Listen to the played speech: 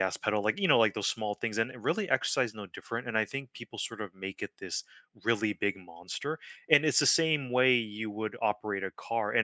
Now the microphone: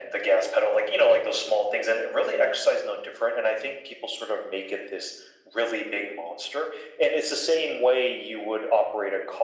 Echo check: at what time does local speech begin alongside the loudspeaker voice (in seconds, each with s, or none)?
none